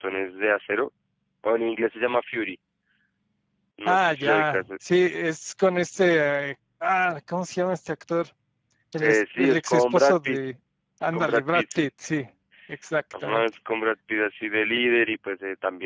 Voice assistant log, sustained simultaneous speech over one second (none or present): present